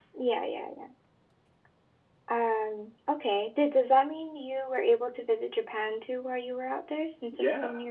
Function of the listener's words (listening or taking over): taking over